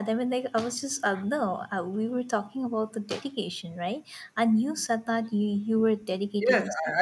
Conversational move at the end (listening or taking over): taking over